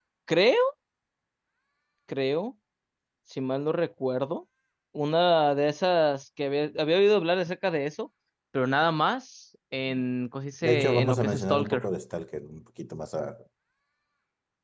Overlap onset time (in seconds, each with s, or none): 10.6 s